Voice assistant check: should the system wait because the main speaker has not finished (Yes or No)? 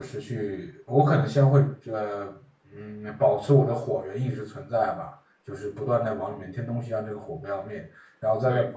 Yes